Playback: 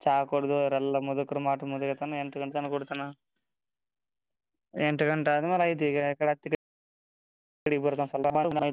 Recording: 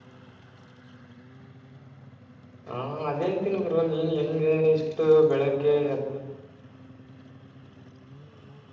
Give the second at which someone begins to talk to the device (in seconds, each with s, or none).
2.7 s